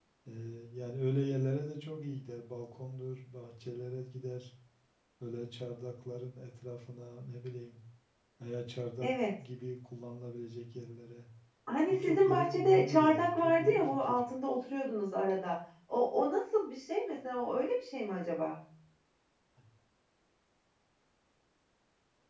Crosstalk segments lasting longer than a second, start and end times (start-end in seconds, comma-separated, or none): 11.9-14.2